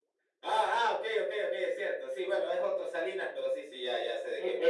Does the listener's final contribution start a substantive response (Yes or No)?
Yes